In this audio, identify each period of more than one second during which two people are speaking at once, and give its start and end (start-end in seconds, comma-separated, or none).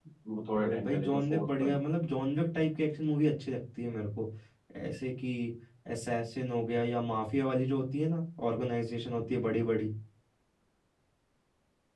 0.6-1.8